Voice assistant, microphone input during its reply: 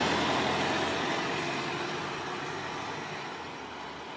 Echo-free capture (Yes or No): Yes